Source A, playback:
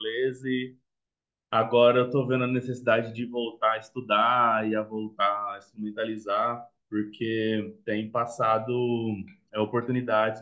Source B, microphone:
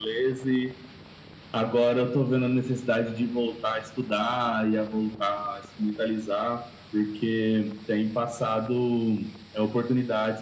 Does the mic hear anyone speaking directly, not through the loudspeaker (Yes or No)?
No